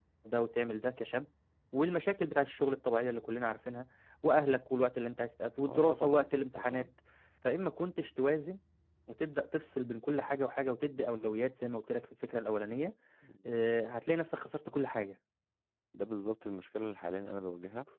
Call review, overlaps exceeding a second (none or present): present